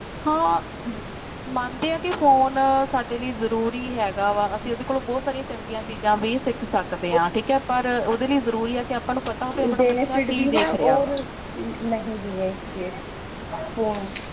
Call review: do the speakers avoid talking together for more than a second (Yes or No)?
No